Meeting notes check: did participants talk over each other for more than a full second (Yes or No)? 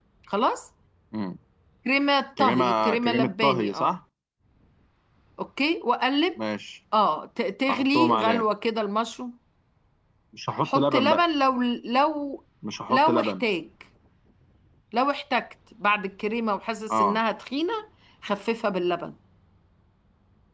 Yes